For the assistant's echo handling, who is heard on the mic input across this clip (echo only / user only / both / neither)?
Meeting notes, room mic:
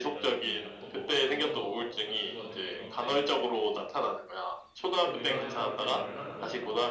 both